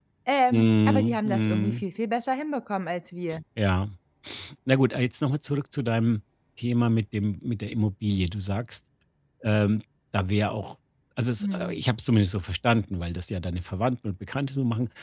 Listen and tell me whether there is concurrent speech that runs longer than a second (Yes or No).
Yes